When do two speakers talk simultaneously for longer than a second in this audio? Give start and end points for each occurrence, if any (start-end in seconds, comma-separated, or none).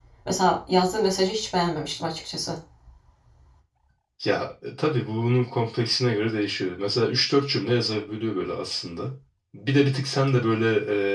none